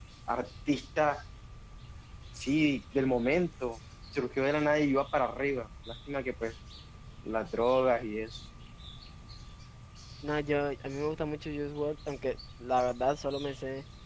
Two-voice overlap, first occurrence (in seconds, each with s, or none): none